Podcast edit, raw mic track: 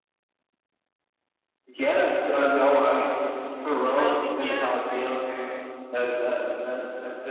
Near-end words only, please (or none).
Oh, yeah, for sure.